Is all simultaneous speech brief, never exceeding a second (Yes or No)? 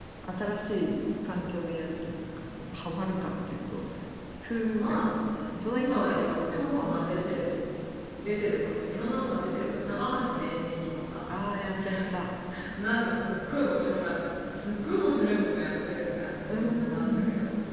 No